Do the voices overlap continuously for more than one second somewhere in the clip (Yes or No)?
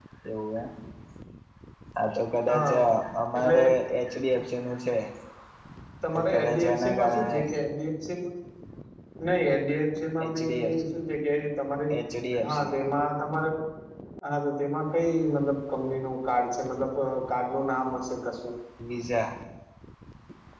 Yes